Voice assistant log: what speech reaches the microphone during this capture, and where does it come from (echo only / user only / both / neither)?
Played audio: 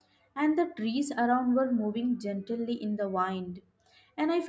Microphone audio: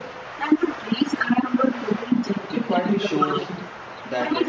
both